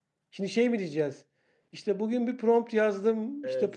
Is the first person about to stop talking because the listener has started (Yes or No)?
No